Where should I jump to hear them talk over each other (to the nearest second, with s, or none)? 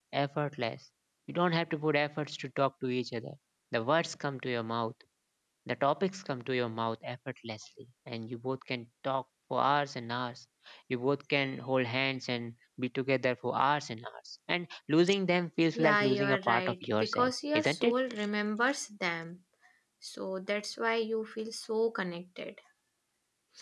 16 s